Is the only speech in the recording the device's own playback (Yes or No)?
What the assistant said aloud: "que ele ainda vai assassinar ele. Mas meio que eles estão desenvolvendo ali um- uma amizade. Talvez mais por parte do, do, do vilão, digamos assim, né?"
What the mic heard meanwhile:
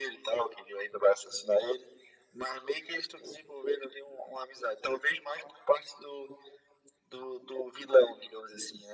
Yes